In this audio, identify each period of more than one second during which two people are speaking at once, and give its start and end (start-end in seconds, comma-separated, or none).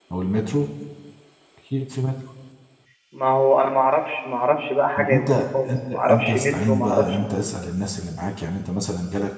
5.0-7.0